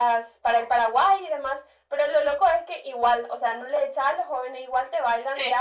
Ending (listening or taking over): listening